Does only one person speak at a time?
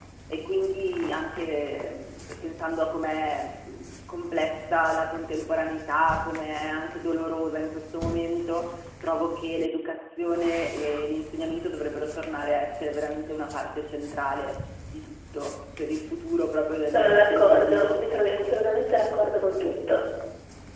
No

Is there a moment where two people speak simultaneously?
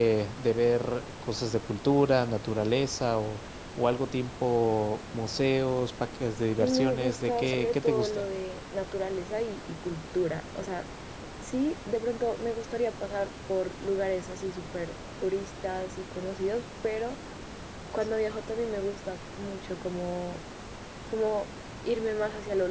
Yes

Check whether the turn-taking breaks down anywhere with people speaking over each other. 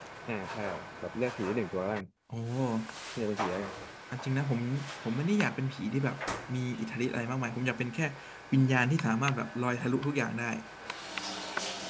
No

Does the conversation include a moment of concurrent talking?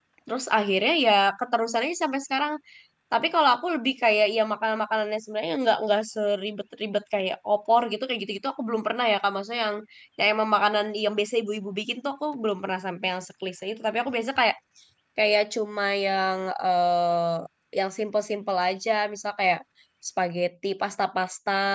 No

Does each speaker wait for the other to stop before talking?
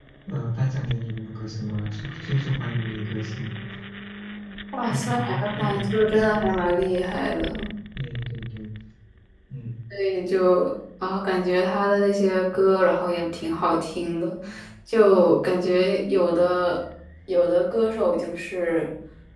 No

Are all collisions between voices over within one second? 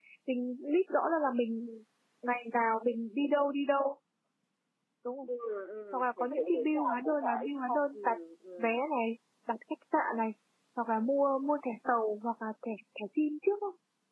No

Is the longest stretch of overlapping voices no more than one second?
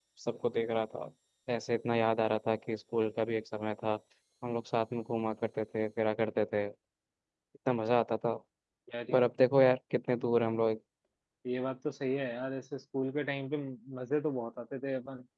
Yes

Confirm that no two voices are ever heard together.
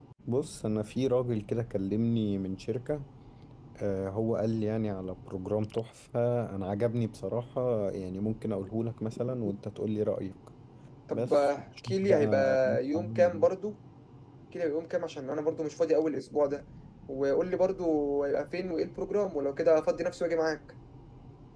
No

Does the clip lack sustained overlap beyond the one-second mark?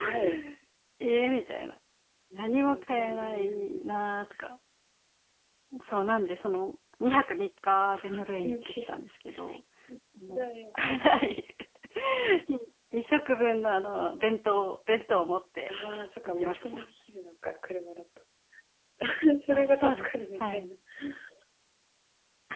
No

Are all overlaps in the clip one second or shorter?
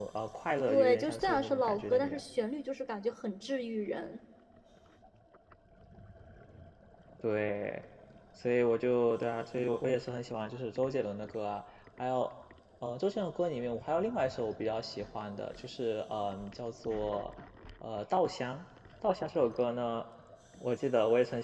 No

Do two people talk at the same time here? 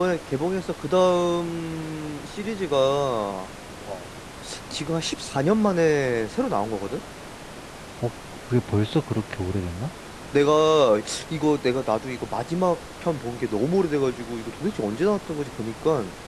No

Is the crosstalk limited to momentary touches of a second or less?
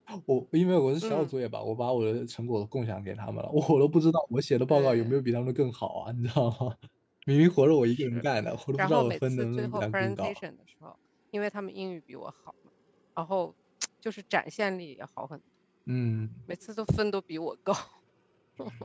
No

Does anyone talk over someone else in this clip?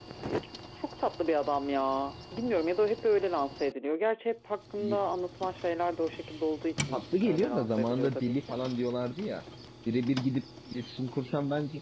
Yes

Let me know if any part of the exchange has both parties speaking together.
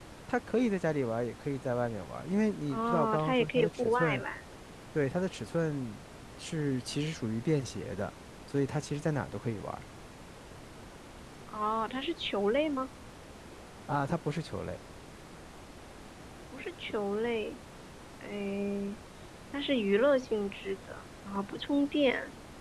Yes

